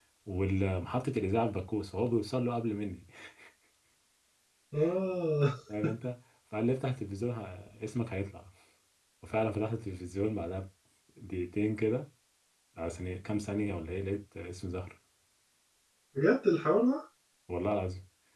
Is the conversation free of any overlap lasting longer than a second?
Yes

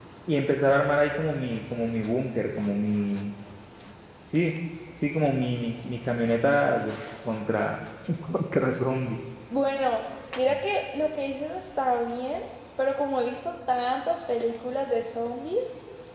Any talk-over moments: No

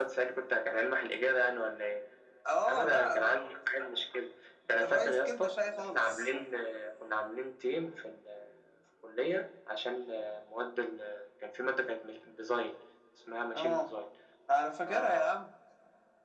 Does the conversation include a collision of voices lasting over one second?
Yes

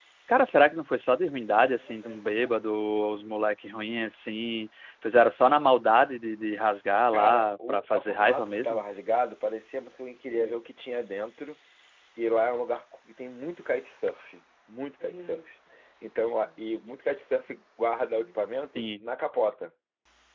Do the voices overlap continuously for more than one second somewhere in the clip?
Yes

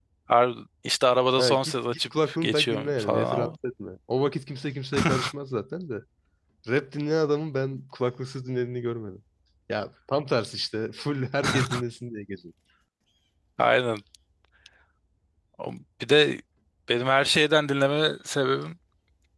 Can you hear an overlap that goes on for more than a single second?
Yes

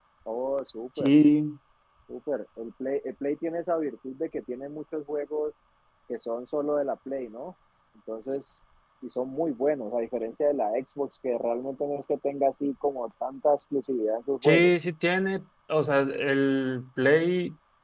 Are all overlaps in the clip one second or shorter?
Yes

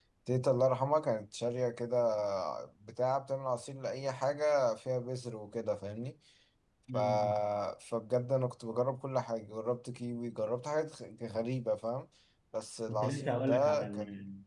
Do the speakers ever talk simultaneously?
Yes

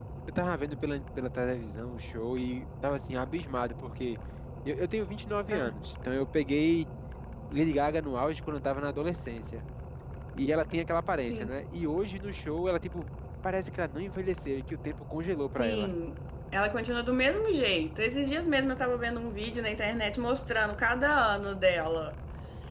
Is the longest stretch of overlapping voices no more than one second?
Yes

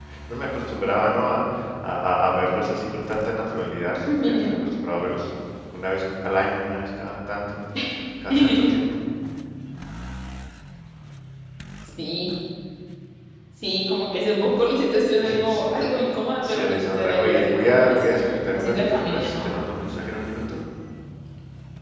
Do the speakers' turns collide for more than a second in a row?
Yes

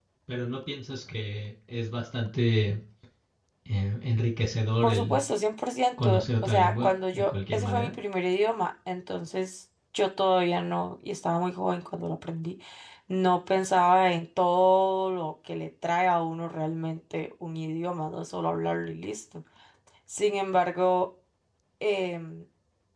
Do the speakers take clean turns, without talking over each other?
No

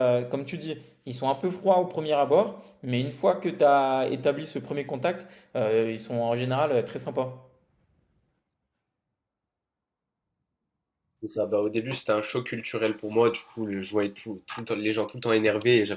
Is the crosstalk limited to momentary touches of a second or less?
Yes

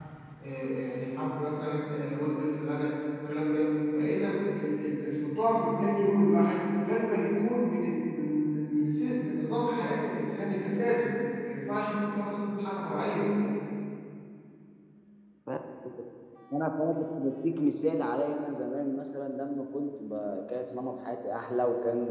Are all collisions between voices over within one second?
Yes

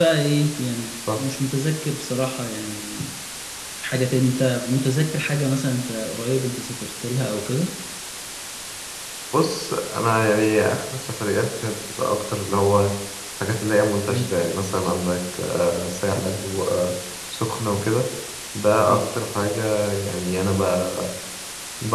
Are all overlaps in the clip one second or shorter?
Yes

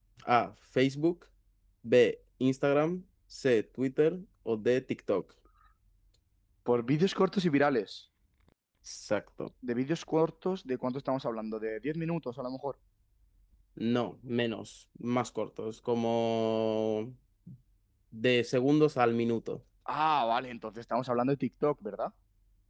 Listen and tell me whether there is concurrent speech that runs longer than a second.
No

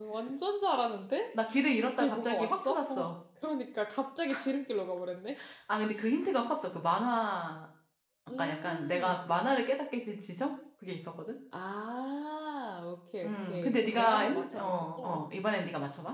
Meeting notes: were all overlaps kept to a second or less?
No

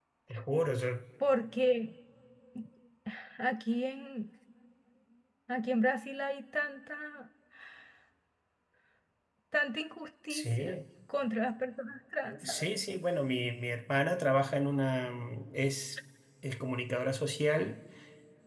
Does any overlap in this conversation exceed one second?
No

